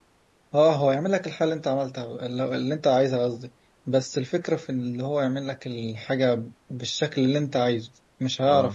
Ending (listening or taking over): listening